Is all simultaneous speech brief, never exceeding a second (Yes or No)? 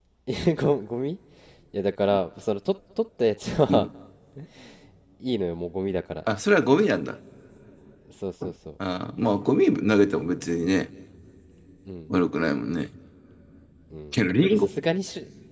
Yes